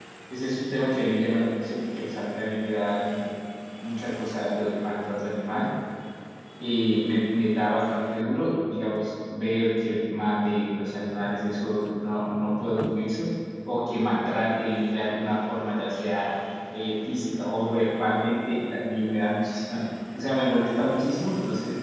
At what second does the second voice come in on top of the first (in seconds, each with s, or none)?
none